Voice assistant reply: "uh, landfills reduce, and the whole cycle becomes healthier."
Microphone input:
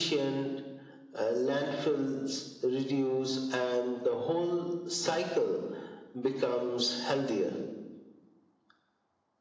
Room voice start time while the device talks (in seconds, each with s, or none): none